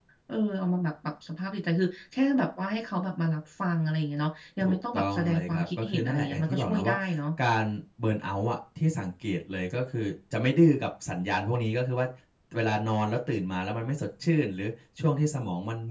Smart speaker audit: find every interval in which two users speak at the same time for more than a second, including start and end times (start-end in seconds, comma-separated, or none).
4.6-6.9